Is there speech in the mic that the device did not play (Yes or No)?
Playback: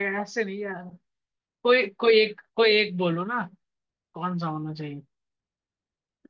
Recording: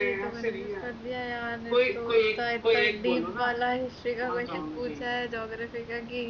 Yes